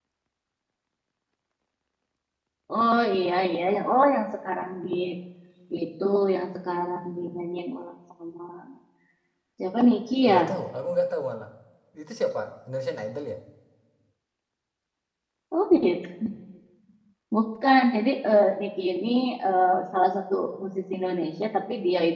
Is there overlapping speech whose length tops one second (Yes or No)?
No